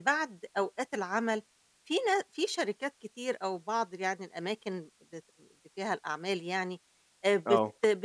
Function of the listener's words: listening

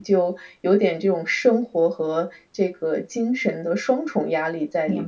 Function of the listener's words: taking over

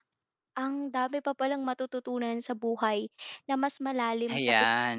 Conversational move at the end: listening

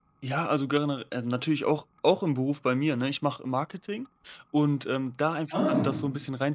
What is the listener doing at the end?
listening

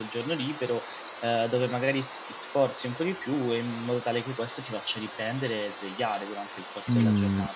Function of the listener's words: taking over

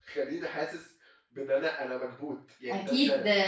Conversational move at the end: taking over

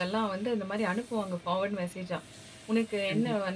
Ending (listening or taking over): listening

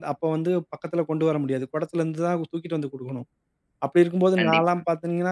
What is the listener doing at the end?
listening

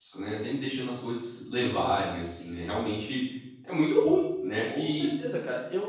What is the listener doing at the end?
taking over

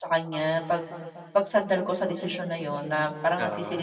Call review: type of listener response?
listening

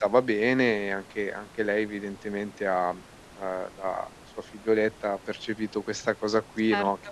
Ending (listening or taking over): listening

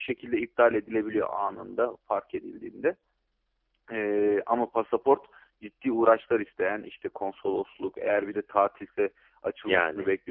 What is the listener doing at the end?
listening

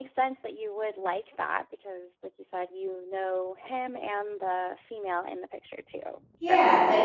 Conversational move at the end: taking over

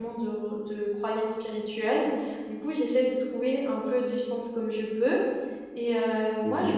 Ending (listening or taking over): listening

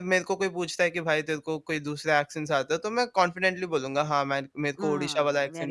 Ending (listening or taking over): taking over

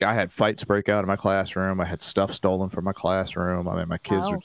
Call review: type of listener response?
listening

